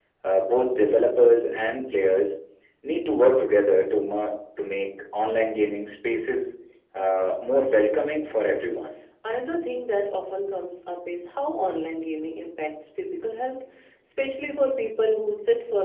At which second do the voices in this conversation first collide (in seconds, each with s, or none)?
none